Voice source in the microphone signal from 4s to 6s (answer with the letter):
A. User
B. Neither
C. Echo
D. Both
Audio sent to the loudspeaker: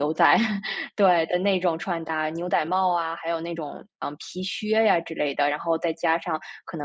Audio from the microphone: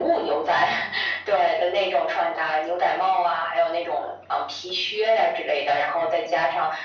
C